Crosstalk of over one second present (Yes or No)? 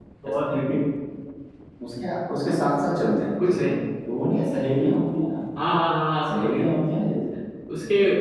No